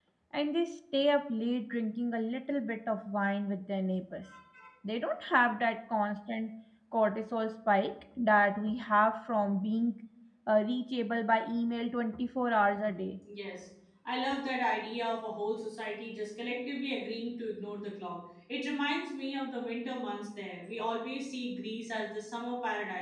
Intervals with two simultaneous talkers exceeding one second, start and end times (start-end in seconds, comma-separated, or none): none